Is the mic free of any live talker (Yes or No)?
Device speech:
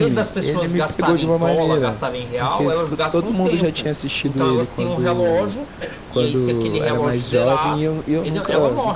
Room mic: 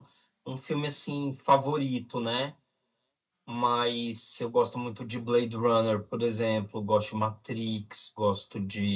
No